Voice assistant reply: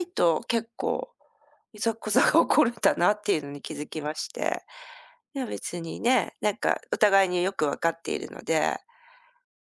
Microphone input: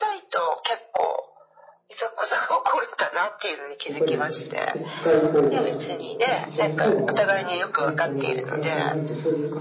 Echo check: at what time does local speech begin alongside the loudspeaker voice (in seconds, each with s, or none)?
3.8 s